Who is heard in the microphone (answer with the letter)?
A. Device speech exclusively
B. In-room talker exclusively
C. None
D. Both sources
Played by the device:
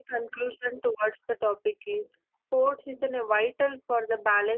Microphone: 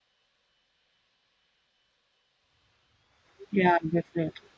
B